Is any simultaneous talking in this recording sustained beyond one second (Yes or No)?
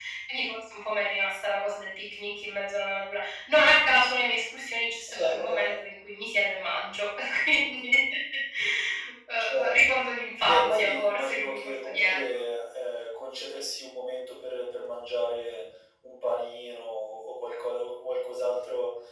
Yes